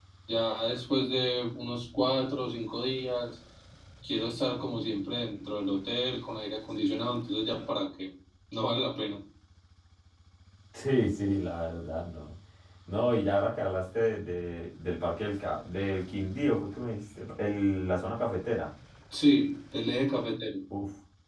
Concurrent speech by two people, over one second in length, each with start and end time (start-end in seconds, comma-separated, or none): none